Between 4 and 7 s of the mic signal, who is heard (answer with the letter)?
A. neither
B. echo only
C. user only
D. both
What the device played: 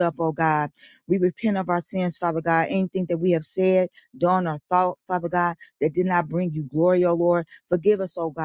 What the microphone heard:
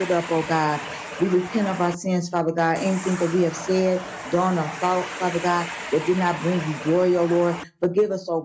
B